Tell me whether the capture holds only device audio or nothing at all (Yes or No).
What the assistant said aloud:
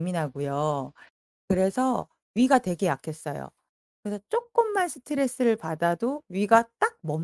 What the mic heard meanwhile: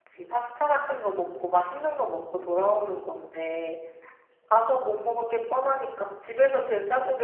No